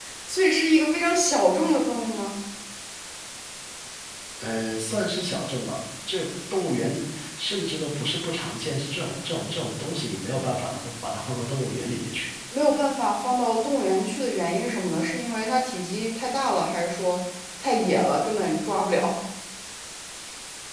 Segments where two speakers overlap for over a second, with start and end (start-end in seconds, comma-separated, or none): none